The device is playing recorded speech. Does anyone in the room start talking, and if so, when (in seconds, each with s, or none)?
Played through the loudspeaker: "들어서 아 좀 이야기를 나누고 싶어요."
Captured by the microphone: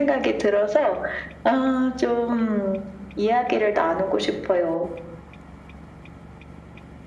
none